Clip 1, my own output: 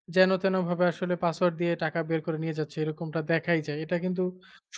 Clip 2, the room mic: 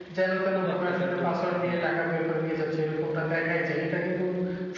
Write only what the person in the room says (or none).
খুব একটা কিন্তু হ্যাঁ।